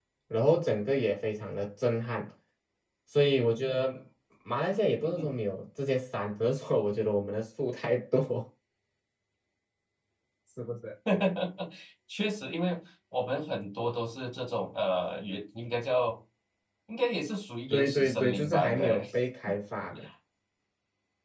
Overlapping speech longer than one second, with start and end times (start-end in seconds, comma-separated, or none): 17.7-19.0